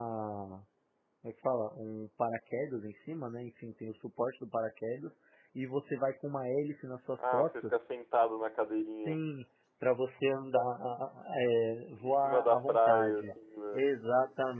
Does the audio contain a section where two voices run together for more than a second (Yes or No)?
Yes